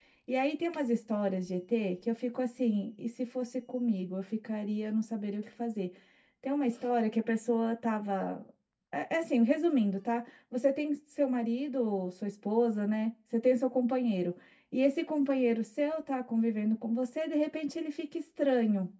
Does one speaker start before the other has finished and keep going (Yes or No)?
No